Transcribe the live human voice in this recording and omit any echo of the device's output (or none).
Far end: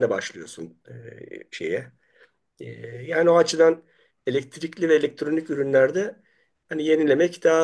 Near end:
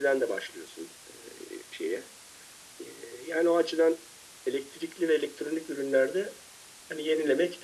none